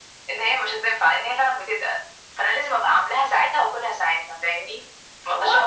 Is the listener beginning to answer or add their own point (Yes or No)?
No